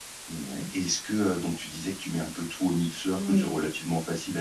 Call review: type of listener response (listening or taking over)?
listening